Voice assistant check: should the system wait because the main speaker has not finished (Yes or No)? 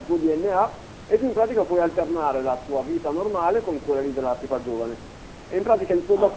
Yes